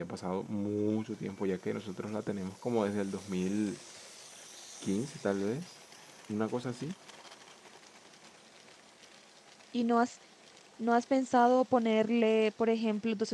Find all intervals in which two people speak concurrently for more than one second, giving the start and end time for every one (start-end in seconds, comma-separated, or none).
none